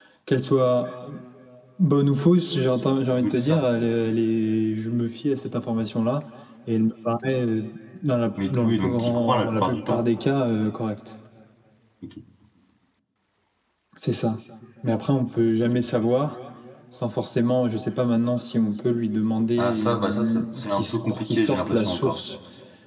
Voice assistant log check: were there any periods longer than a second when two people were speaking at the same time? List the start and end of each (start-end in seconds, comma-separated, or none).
8.5-10.1, 19.6-22.2